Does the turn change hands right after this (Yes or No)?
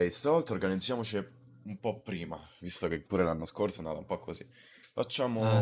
Yes